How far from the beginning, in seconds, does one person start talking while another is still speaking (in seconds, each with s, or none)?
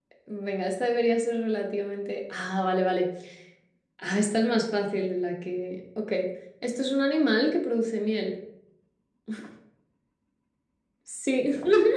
none